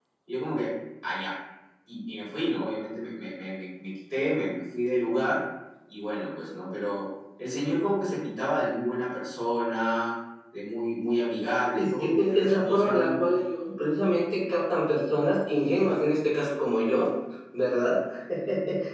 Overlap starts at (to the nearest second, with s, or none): 12 s